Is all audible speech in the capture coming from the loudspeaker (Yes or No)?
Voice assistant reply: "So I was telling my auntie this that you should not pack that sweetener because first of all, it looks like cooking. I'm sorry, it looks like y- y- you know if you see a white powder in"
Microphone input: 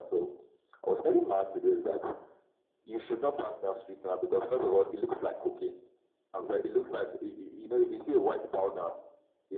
Yes